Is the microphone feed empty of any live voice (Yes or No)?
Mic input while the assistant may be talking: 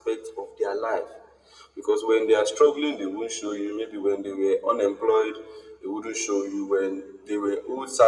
Yes